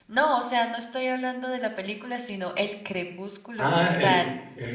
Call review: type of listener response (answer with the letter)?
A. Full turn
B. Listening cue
A